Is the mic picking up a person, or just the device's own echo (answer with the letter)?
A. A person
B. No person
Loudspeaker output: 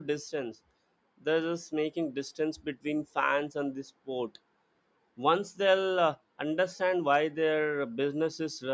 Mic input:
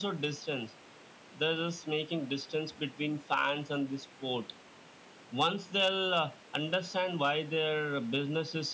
B